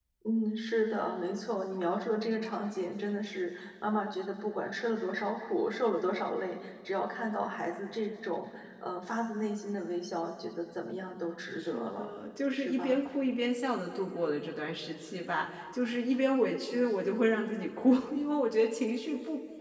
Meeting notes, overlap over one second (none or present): none